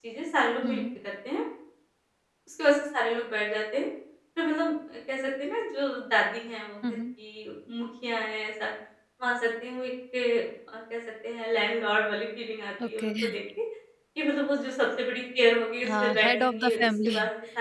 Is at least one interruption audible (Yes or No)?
Yes